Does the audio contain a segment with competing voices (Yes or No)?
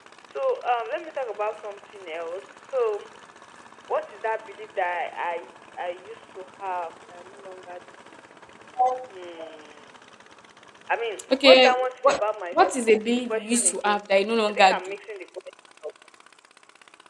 Yes